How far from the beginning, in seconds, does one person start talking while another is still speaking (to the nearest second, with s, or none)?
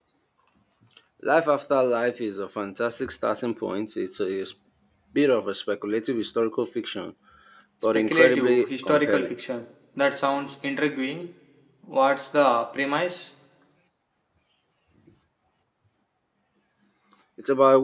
8 s